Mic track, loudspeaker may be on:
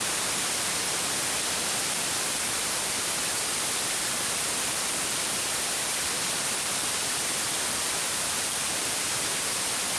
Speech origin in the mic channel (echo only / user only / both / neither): neither